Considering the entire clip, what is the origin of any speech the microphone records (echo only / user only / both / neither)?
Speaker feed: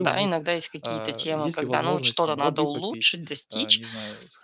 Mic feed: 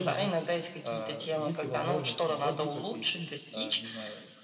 echo only